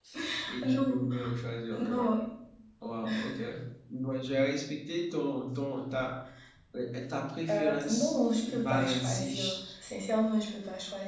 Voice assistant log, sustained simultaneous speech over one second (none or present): present